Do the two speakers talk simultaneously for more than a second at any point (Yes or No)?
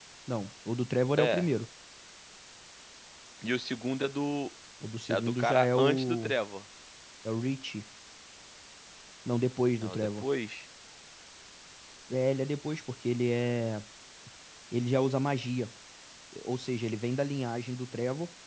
Yes